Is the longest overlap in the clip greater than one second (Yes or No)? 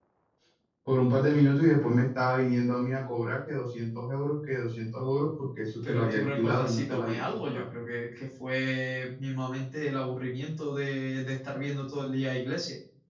Yes